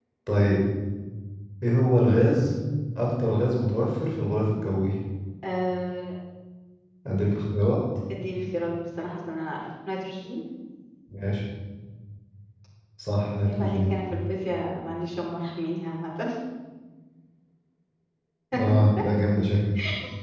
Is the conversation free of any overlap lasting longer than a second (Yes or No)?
Yes